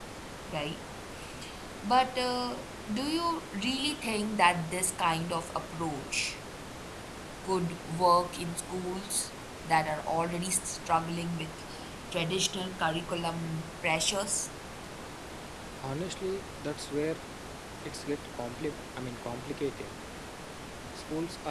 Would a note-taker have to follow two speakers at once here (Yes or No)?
No